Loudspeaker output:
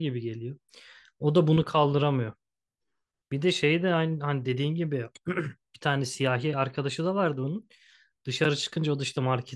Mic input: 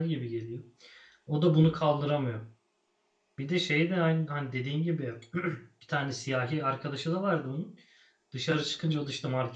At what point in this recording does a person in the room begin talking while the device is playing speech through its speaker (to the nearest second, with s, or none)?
none